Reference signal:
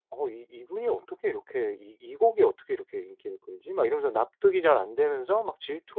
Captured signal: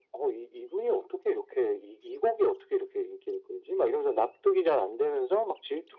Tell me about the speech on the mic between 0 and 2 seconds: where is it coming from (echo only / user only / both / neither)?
echo only